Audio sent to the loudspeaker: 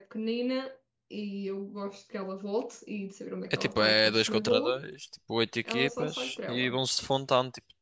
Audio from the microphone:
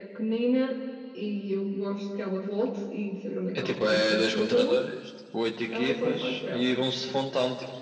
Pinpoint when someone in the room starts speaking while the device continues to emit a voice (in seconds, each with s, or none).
none